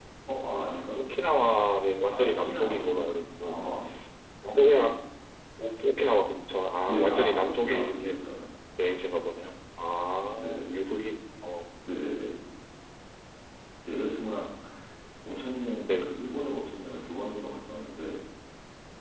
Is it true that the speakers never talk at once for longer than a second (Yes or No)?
No